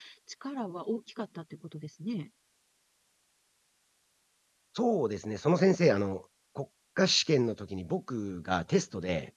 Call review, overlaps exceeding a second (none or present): none